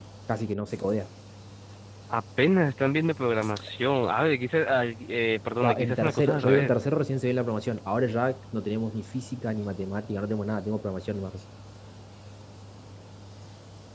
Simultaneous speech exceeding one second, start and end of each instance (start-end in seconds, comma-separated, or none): 5.6-6.8